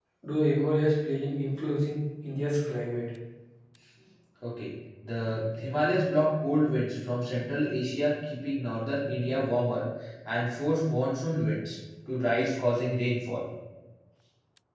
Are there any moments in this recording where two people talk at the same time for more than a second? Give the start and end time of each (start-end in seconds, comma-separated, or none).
none